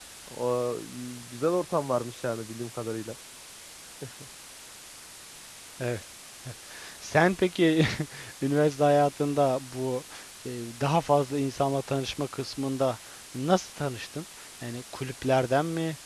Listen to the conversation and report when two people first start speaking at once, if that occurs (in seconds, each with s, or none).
none